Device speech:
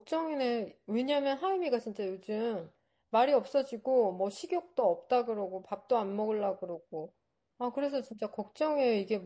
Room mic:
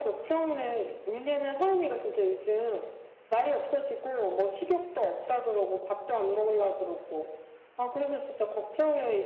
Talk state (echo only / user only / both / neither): echo only